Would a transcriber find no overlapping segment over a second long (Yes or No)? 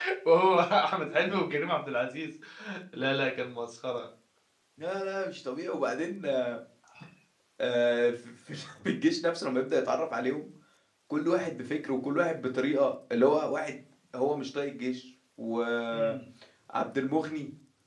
Yes